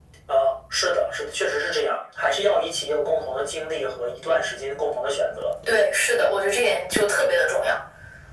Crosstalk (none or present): none